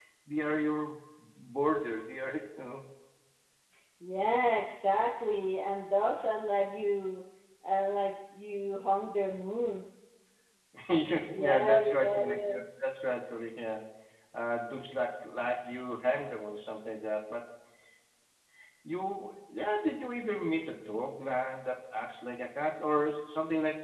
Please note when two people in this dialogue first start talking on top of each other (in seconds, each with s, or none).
11.4 s